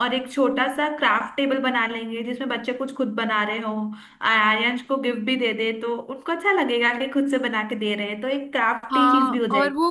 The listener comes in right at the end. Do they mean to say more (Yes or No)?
Yes